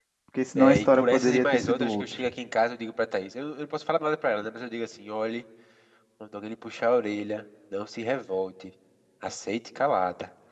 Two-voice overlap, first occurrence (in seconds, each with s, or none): 0.6 s